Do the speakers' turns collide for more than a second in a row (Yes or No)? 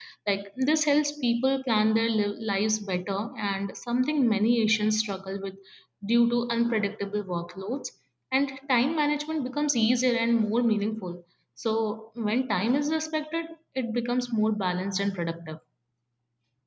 No